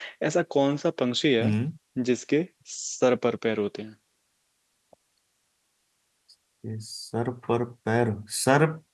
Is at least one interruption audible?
No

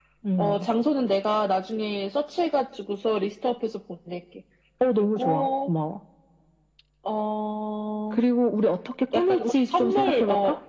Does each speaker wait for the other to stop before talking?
No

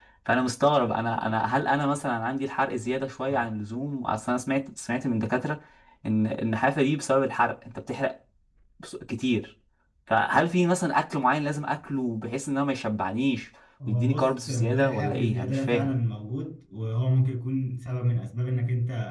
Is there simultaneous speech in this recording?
Yes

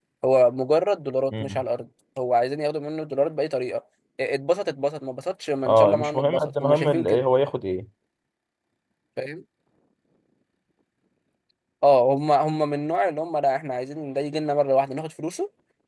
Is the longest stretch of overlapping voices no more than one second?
No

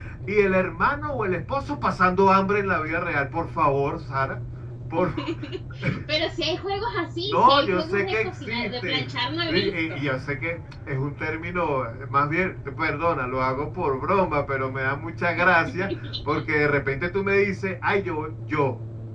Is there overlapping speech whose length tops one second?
Yes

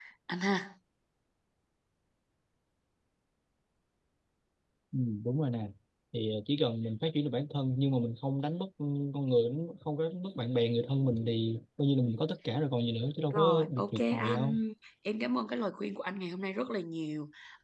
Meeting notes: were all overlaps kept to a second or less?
No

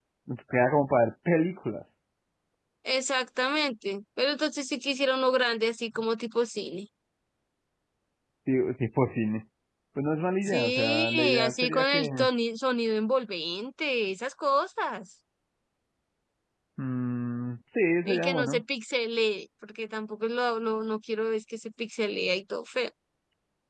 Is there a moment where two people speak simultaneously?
Yes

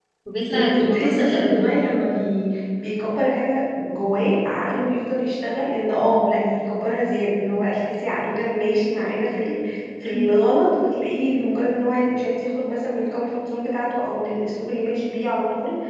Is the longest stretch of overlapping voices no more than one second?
No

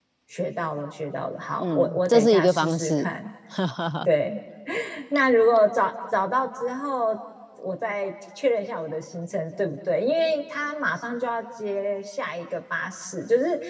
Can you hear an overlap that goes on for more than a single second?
Yes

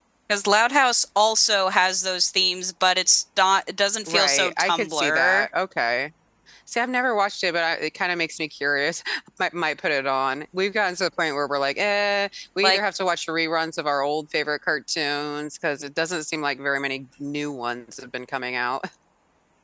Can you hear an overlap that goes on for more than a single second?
Yes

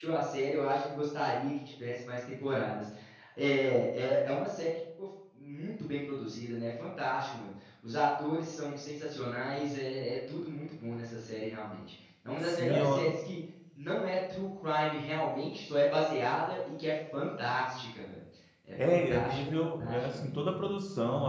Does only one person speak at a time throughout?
No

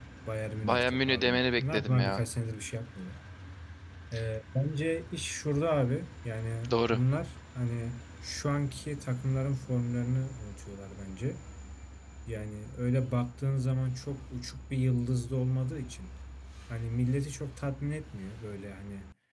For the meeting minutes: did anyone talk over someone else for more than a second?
Yes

